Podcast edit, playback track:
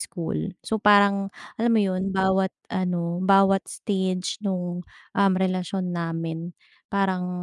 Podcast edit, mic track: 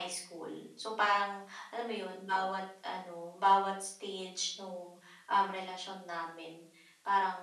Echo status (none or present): present